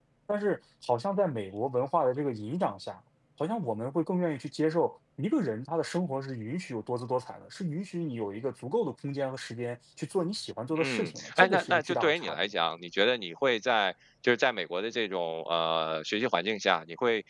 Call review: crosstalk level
present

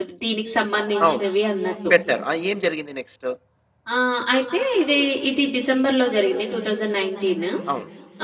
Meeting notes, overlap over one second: none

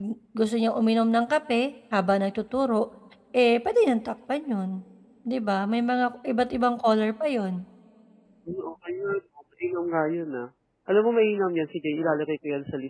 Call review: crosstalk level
none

